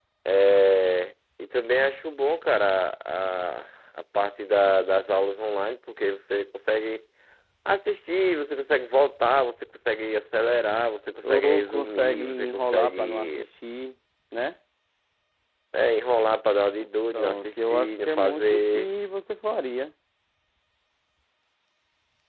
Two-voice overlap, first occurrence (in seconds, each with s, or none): 11.2 s